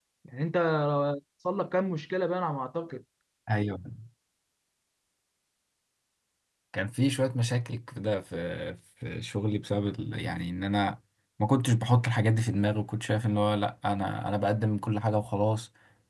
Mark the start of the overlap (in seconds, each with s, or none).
none